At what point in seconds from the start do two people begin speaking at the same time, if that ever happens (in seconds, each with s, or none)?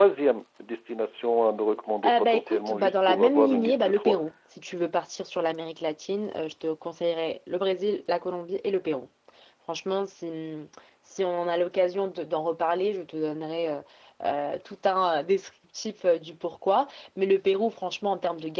2.0 s